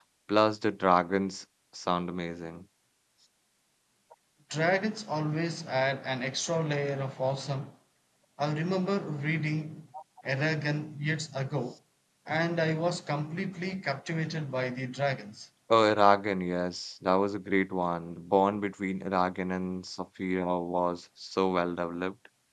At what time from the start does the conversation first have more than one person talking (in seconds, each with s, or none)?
none